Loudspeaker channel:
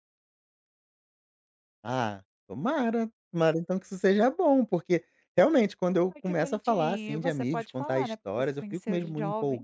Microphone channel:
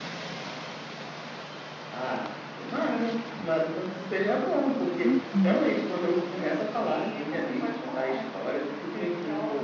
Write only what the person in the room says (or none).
Uhum,